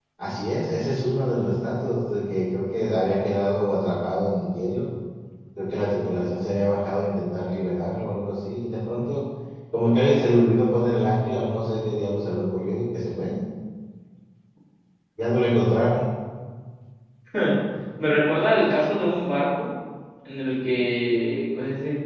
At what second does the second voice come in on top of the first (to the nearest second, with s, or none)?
none